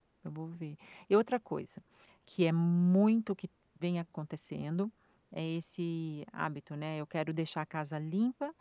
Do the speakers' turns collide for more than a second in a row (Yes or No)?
No